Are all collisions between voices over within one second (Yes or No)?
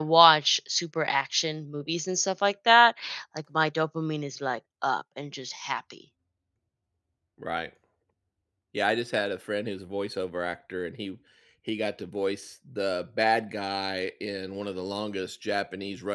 Yes